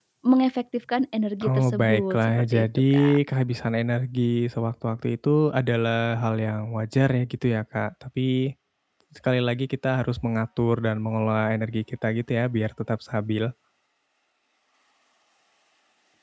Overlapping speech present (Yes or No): Yes